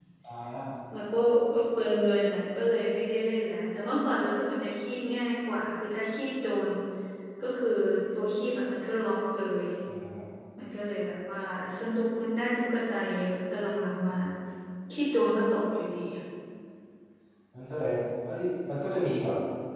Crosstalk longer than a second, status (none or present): none